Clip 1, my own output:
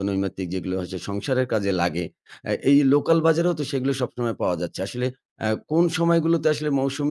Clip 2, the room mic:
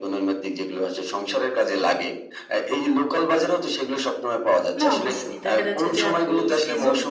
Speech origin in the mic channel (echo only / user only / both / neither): both